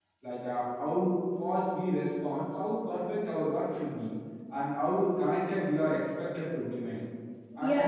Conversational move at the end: taking over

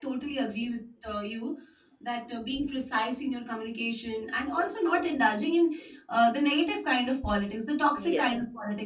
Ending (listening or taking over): listening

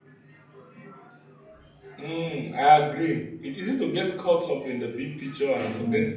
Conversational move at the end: listening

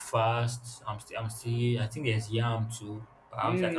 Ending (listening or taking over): taking over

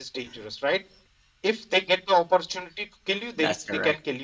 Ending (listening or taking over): listening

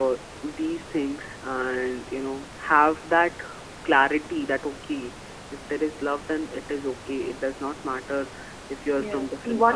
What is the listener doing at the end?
taking over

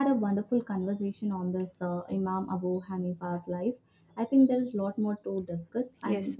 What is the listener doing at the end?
listening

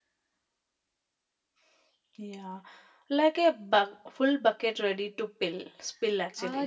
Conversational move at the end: taking over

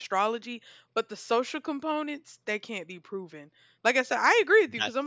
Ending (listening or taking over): listening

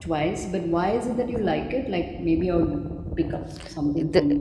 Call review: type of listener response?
taking over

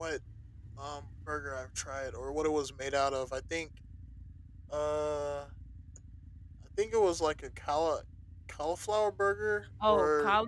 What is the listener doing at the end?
taking over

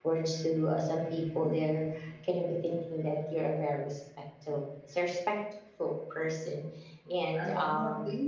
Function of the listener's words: taking over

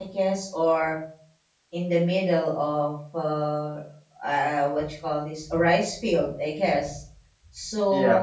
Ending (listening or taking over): listening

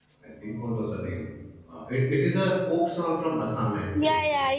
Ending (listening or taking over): taking over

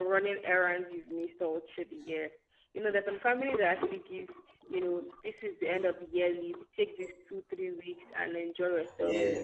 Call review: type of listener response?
listening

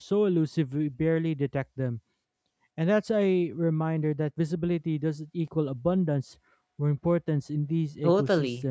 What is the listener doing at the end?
taking over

